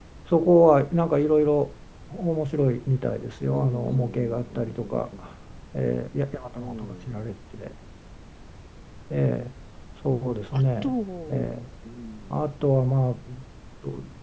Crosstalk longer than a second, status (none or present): present